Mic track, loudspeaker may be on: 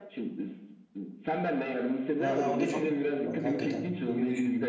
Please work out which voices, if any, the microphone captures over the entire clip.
both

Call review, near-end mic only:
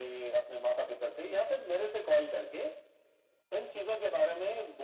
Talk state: echo only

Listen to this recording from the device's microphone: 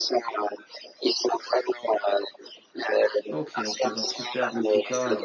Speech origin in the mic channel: both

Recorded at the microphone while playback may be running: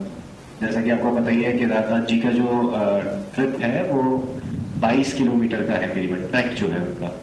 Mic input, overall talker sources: echo only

